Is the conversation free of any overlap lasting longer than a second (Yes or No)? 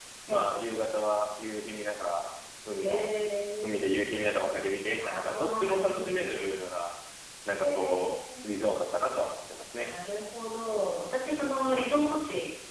No